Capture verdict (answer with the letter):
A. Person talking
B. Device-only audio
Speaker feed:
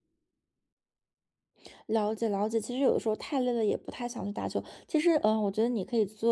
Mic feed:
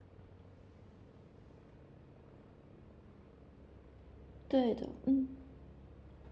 A